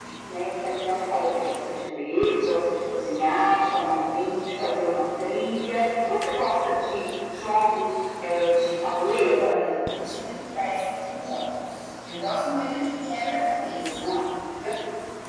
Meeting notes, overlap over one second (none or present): none